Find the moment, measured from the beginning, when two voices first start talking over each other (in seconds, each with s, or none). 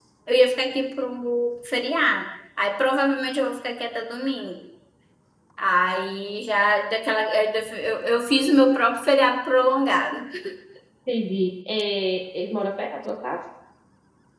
none